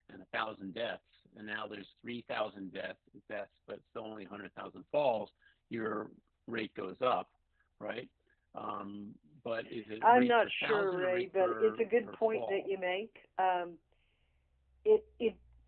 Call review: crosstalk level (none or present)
present